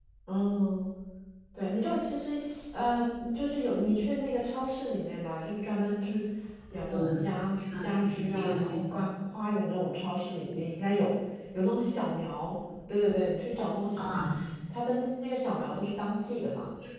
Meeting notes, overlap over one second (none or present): present